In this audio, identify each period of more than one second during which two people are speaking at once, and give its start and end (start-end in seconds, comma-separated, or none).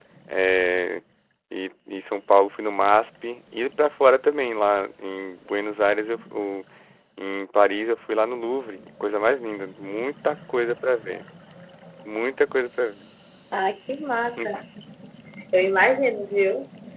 none